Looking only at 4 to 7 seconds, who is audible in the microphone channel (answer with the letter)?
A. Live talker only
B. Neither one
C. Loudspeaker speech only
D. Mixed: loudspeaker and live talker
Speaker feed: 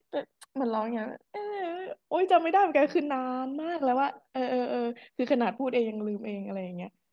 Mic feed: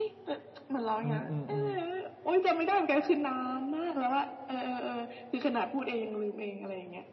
C